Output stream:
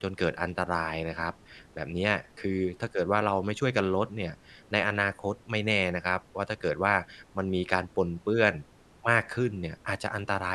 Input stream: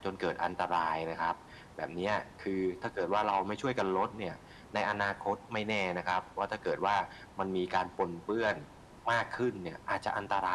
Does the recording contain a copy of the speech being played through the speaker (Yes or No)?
Yes